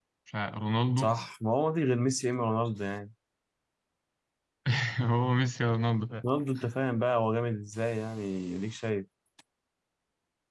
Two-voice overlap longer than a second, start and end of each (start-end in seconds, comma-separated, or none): none